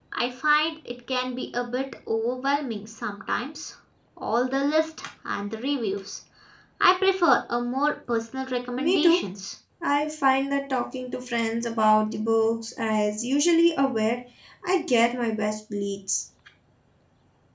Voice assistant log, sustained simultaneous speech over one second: none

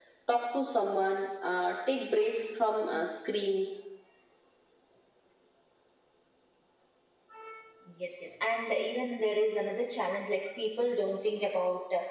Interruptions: none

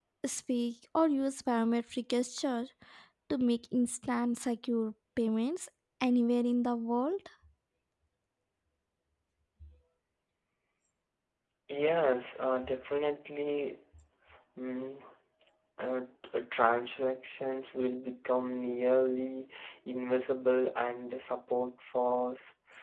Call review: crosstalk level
none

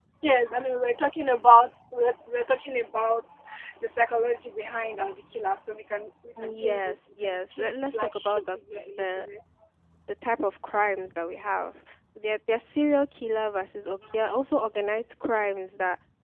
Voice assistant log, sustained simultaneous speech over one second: present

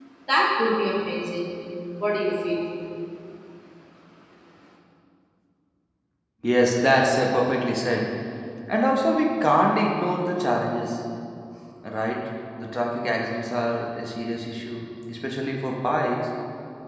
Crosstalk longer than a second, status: none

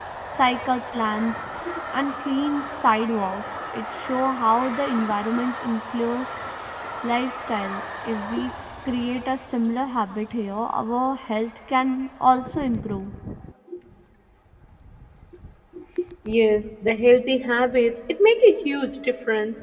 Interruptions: none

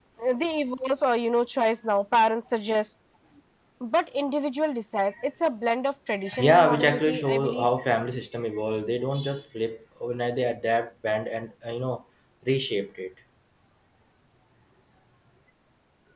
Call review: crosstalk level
present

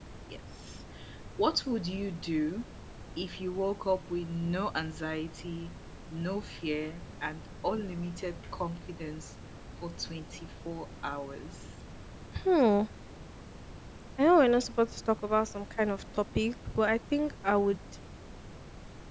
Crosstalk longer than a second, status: none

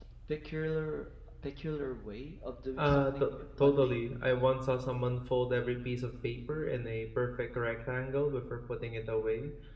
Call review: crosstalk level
present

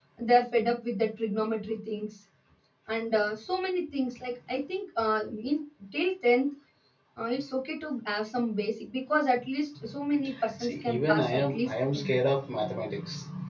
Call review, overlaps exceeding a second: present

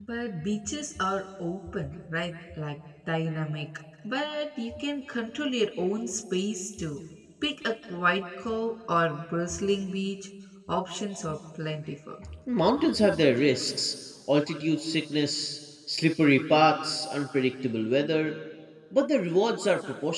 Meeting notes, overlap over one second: none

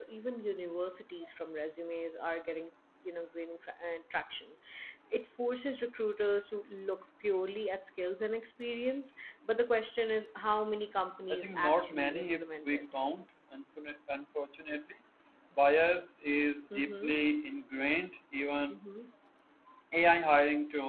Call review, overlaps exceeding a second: present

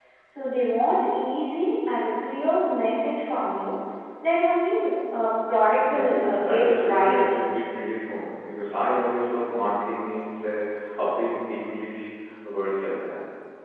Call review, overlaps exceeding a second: present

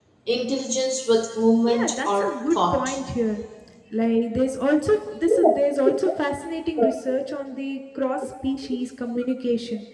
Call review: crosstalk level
present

